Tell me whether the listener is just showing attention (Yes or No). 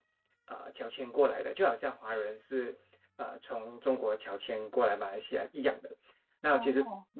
Yes